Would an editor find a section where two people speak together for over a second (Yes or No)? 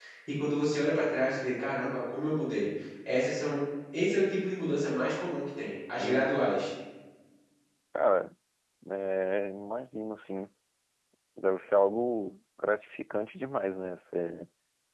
No